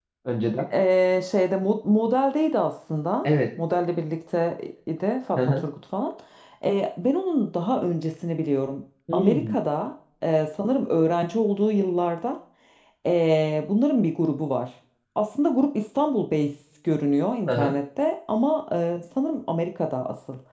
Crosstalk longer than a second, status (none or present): none